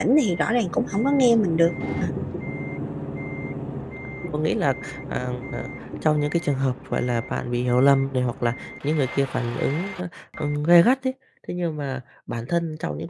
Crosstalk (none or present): none